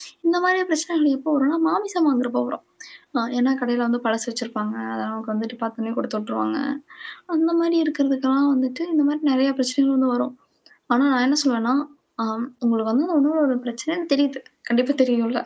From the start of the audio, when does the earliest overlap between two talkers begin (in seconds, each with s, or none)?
none